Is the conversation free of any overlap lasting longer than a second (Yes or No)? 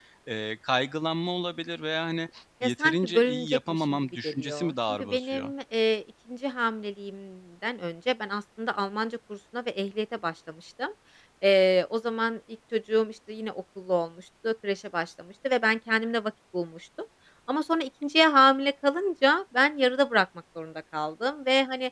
No